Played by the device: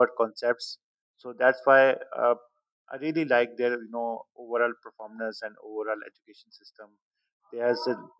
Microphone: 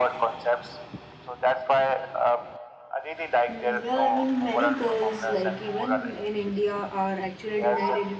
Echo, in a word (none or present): present